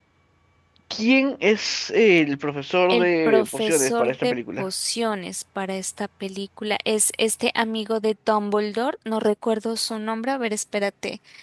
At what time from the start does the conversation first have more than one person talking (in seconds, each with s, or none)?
2.9 s